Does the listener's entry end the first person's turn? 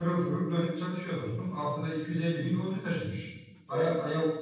No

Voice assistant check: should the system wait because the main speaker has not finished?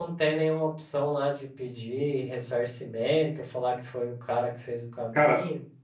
No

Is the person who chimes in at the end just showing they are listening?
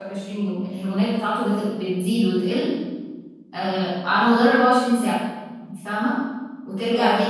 Yes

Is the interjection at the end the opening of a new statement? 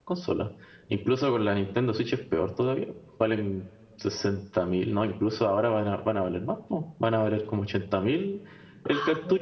Yes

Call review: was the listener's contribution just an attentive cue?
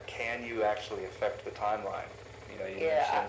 No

